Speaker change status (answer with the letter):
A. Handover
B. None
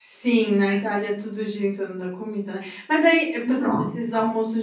B